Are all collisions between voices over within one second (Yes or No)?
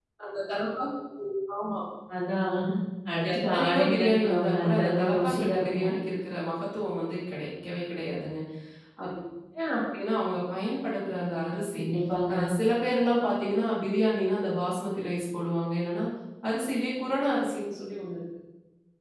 No